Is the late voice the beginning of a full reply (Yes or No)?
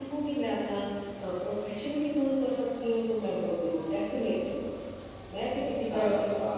Yes